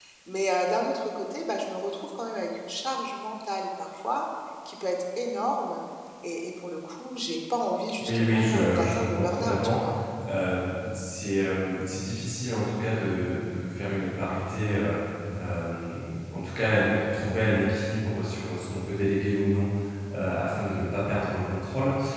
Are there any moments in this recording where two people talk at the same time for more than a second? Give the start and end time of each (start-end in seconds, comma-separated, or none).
8.0-9.8